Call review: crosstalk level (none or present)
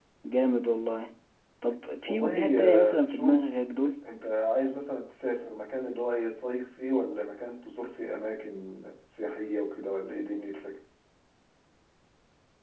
present